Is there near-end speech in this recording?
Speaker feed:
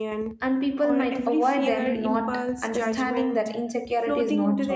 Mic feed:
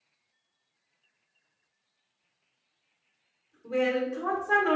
Yes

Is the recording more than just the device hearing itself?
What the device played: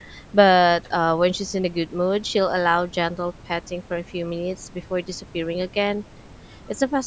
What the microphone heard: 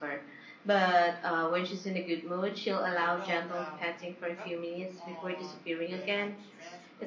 Yes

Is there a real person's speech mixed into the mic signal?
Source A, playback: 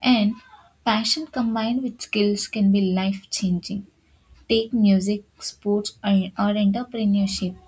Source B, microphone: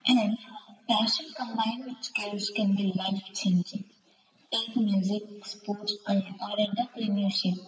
No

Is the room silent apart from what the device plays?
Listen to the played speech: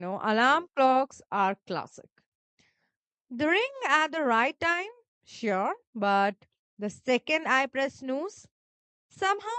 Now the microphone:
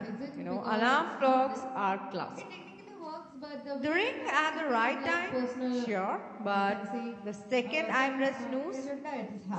No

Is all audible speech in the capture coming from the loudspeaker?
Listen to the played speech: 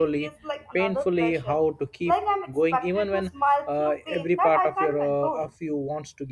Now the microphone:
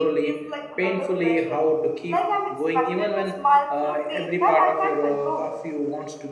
Yes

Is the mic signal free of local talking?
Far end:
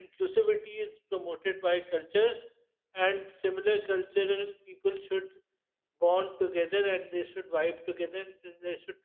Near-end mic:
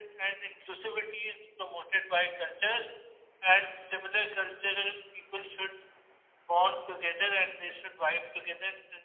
Yes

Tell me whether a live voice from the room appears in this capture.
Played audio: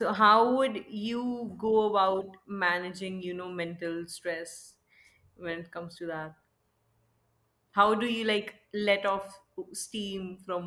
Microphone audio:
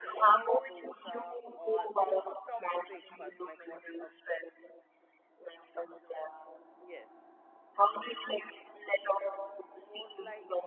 Yes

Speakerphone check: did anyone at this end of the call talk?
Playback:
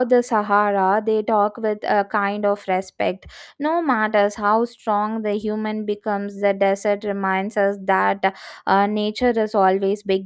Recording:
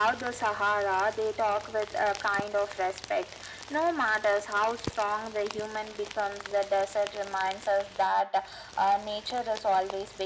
No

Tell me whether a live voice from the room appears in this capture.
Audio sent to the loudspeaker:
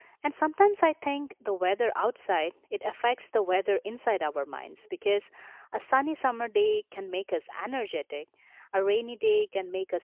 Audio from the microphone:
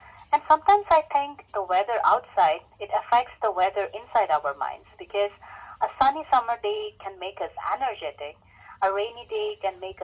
No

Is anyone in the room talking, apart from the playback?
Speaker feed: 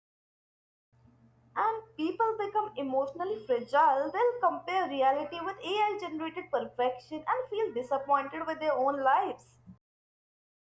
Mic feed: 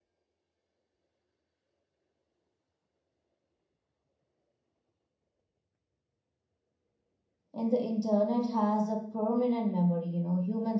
Yes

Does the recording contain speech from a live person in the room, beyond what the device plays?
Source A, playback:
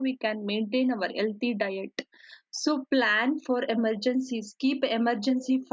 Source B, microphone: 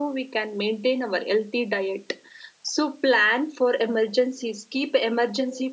No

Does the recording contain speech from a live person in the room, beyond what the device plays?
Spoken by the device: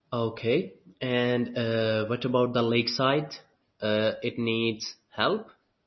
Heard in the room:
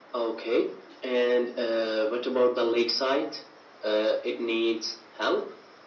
No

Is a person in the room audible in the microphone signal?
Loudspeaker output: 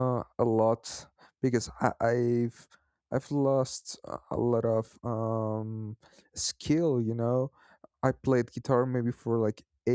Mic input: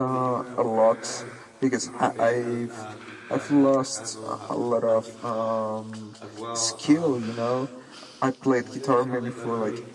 Yes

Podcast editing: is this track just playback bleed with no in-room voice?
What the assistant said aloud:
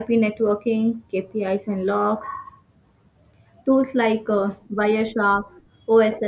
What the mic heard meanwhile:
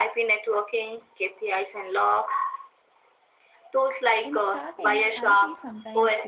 No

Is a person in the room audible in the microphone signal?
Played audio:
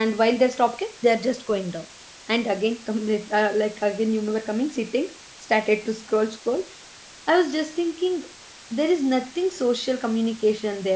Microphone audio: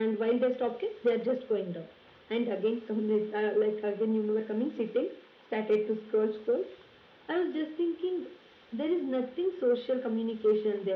No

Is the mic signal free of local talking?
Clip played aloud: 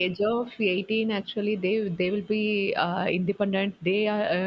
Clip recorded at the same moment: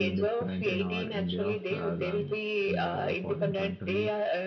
No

